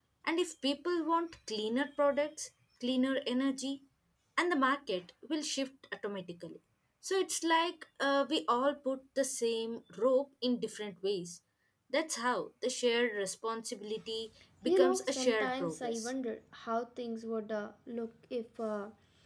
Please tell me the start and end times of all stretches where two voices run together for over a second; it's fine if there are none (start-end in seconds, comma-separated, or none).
14.7-16.1